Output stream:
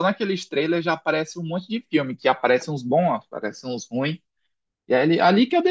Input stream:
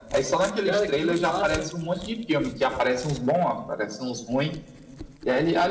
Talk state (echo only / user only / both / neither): both